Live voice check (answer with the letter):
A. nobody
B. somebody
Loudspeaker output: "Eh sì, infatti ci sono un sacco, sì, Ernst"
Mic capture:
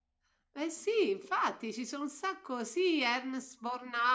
A